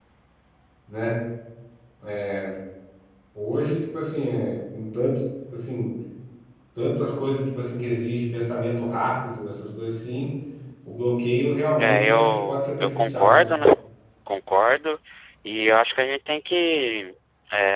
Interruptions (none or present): present